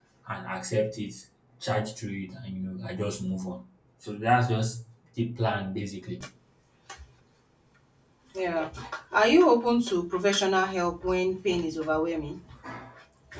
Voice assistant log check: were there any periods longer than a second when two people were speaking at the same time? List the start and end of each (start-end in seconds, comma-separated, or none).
none